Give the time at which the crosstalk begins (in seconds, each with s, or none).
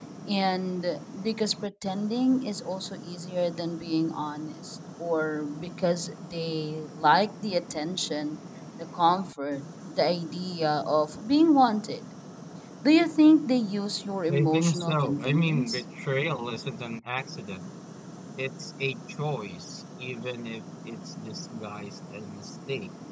14.3 s